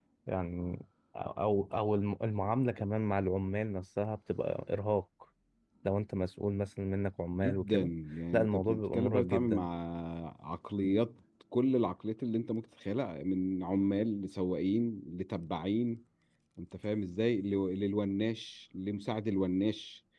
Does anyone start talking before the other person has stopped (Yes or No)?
Yes